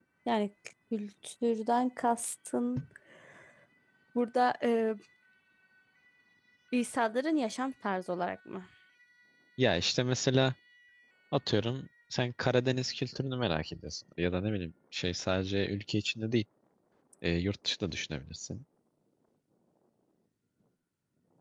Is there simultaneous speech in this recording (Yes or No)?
No